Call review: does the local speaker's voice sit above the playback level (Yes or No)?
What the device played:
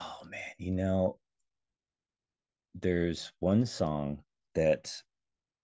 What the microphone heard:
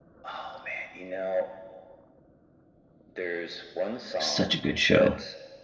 Yes